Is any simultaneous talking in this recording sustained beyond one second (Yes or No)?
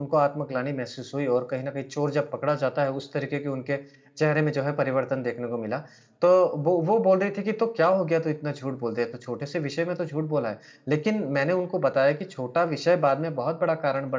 No